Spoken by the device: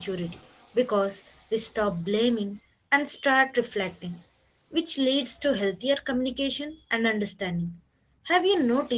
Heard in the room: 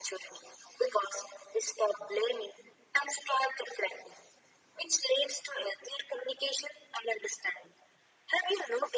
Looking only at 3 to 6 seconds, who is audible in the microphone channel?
echo only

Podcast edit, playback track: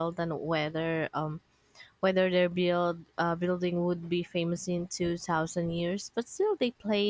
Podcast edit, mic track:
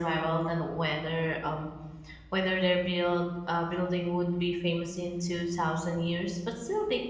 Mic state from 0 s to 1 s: echo only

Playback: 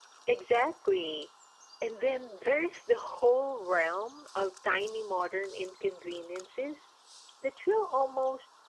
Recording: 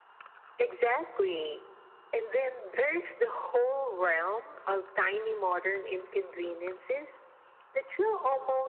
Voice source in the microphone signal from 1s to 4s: echo only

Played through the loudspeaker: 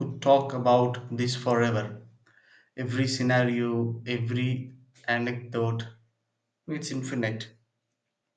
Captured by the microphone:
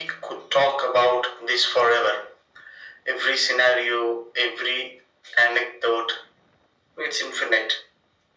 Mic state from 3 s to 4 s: echo only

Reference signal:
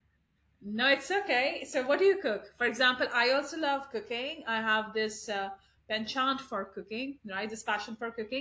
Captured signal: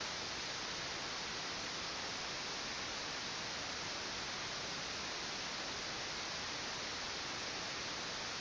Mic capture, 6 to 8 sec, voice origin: neither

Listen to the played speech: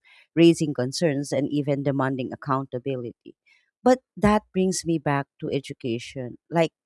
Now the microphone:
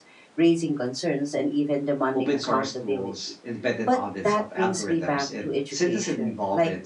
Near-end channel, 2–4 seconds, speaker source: both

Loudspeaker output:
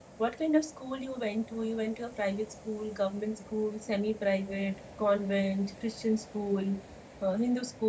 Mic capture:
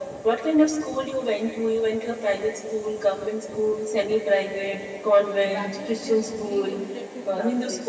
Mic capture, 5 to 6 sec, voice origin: both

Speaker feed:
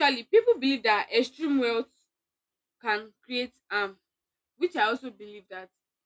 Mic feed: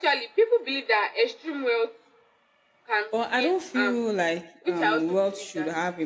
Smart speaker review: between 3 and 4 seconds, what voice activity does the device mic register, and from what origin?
both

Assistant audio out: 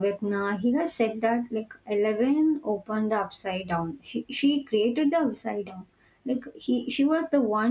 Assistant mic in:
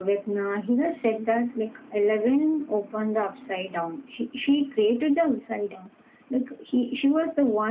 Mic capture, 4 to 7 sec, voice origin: echo only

